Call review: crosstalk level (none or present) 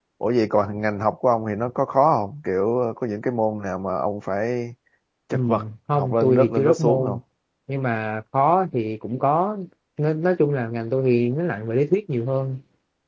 present